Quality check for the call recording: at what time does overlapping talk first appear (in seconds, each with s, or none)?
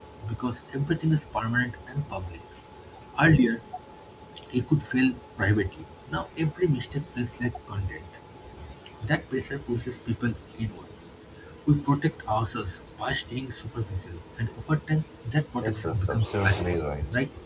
15.6 s